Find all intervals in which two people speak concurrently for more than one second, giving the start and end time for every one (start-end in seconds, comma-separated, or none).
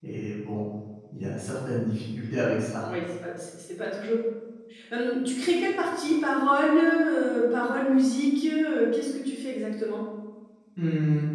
none